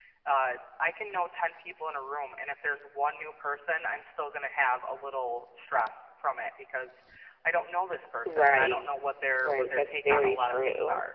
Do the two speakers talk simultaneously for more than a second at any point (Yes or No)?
Yes